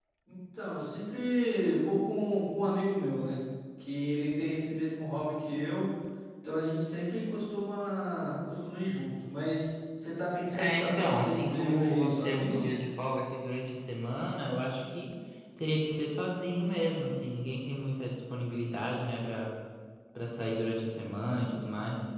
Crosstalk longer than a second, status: present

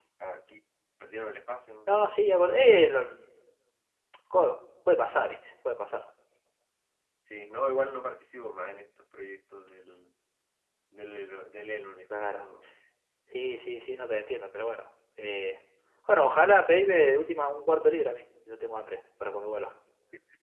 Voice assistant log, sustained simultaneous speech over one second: none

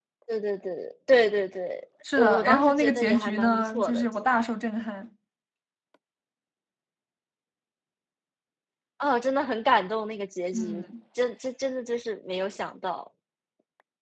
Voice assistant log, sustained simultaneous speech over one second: present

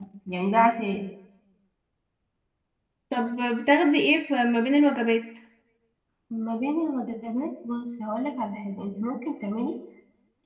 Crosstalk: none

